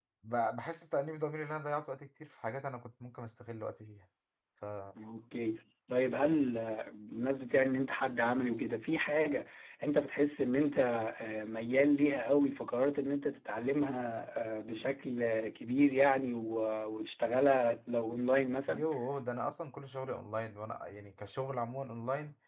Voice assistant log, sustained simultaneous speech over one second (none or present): none